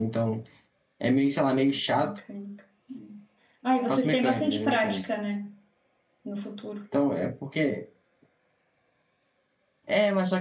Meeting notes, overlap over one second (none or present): present